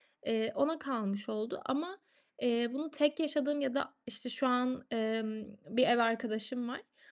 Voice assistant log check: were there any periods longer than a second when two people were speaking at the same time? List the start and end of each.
none

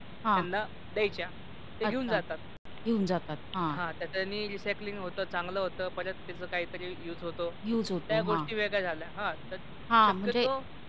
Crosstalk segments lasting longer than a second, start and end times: none

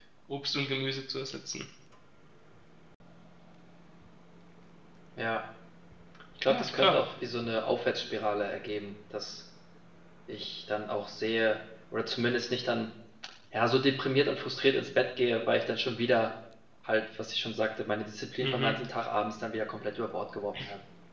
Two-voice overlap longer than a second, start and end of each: none

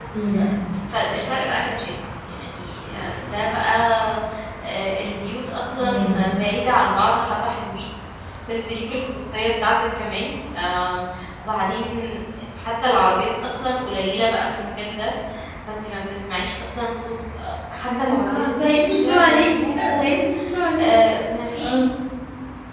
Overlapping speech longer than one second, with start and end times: 17.9-20.1

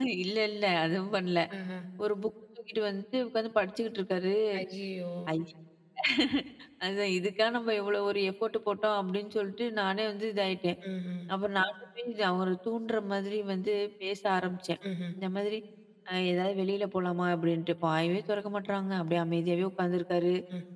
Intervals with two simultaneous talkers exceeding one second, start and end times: none

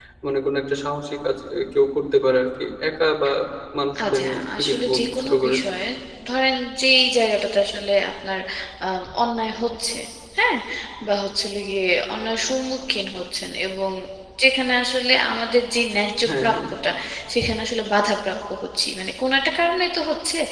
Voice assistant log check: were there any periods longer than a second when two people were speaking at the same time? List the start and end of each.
4.0-5.6

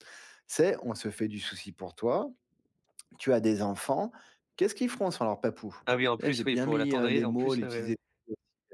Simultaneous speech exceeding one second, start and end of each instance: 6.2-7.9

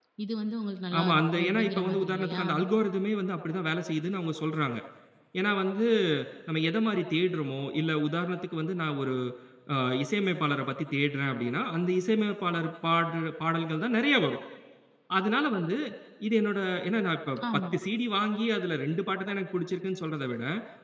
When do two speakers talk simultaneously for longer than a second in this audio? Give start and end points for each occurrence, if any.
1.0-2.5

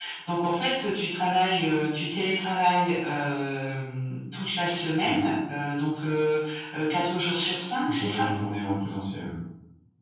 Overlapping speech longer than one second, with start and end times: none

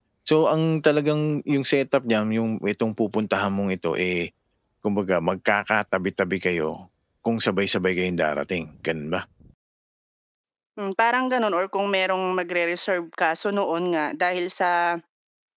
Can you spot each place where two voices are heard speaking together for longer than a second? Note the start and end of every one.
none

